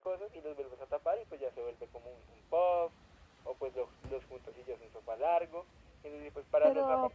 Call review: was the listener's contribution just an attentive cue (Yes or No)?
No